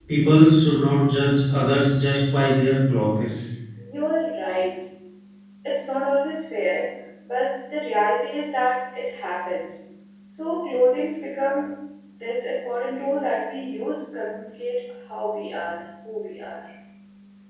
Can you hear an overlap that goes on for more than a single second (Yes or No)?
No